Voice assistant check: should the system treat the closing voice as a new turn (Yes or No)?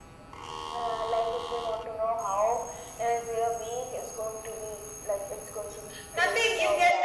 Yes